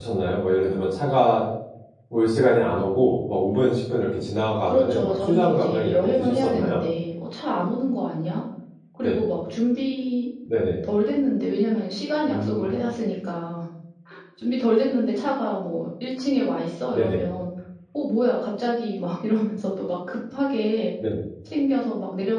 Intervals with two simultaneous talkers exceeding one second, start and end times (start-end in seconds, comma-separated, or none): 4.7-6.8